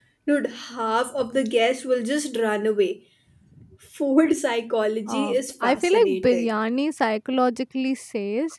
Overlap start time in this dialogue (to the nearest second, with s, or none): 5 s